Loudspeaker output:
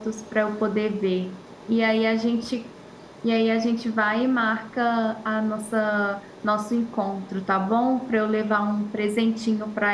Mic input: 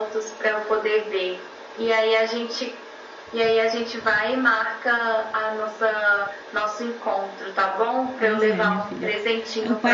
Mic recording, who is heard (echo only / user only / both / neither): both